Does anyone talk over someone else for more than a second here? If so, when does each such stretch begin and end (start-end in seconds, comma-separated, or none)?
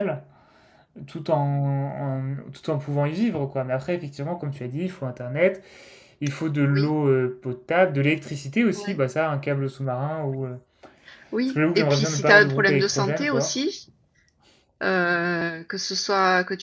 11.5-13.6